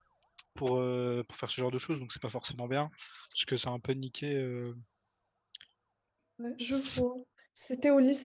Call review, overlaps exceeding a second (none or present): none